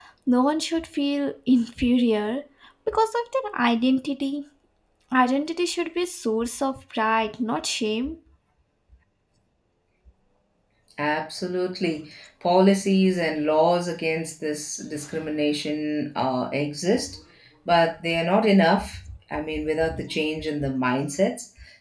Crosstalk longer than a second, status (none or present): none